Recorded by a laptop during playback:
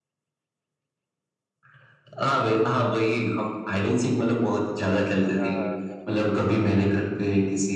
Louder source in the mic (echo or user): echo